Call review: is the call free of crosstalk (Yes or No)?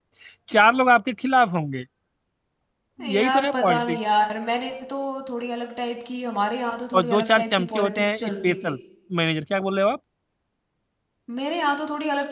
No